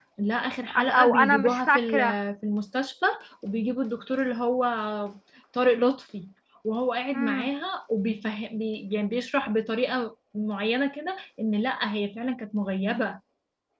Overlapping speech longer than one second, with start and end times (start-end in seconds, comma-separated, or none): 0.7-2.2